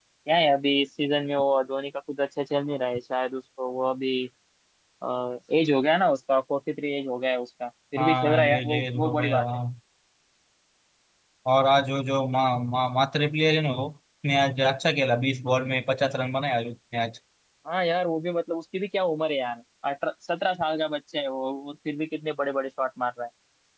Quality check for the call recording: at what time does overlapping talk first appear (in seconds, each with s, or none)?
8.0 s